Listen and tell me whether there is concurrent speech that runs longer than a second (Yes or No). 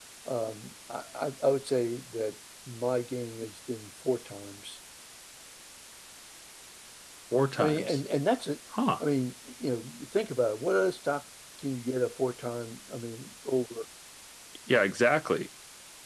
No